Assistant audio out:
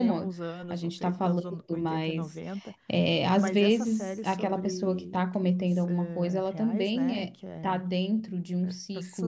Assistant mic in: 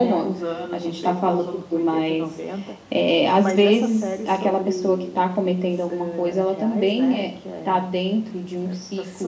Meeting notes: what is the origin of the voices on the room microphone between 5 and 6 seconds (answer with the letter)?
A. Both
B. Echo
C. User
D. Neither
B